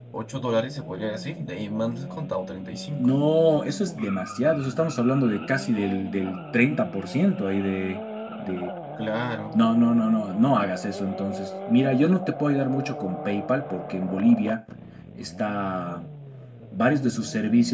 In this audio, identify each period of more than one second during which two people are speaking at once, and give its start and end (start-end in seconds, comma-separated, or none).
none